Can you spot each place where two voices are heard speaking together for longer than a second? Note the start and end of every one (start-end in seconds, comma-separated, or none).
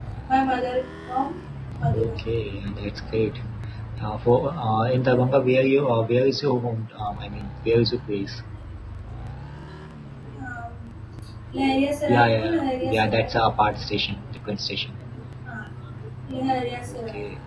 12.1-13.3